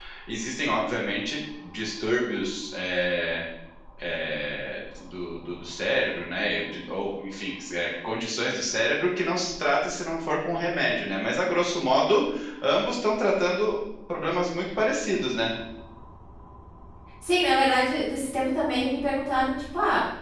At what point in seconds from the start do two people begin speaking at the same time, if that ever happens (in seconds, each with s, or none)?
none